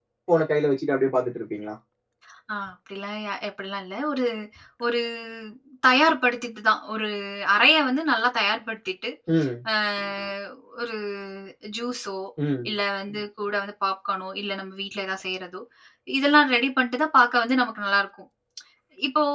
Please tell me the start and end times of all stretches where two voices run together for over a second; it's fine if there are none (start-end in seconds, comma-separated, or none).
none